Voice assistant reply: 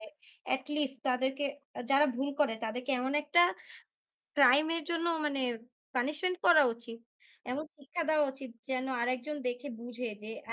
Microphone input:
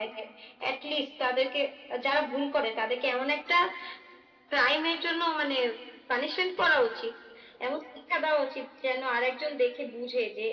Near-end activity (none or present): none